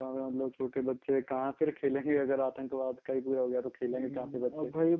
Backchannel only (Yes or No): No